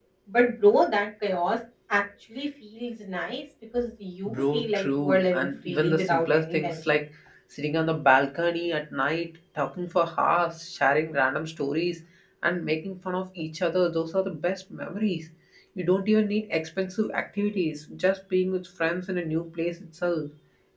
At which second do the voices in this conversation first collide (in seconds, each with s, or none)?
4.2 s